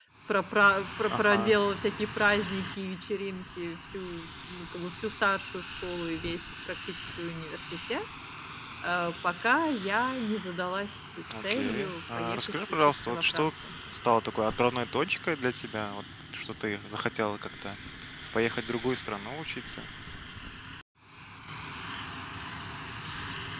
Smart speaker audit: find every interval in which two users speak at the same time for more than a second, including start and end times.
11.4-13.5

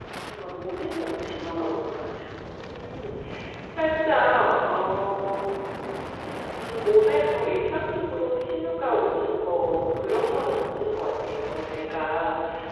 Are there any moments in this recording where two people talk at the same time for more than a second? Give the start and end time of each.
none

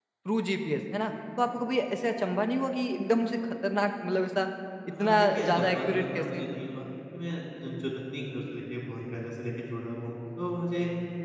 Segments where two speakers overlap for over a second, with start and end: 5.0-6.5

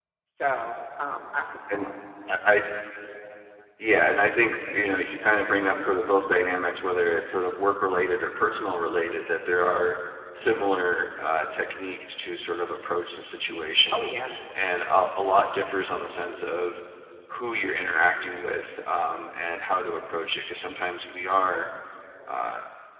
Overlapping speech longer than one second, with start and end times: none

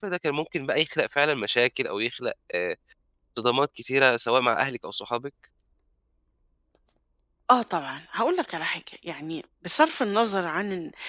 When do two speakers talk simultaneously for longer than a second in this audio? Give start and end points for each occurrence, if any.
none

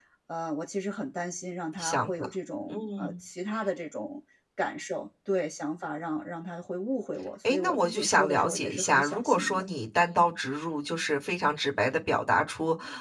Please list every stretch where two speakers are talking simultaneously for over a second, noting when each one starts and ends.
7.4-9.6

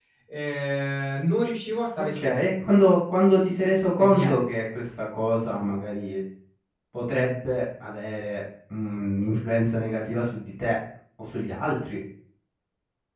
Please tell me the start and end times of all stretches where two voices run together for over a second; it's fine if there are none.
none

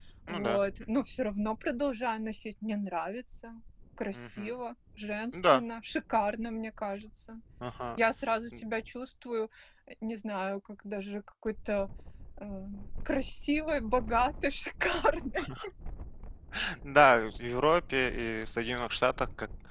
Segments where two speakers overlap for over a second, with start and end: none

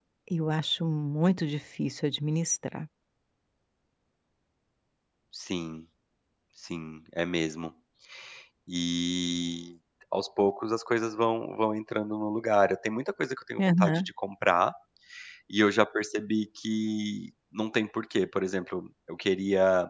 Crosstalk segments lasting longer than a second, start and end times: none

